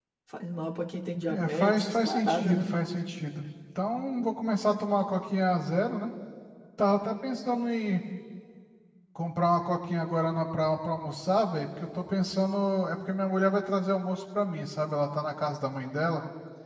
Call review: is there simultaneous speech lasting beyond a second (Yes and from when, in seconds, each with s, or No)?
Yes, from 1.3 s